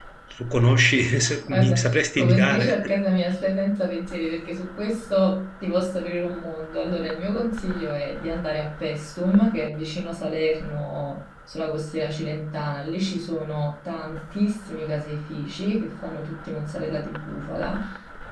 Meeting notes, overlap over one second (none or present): present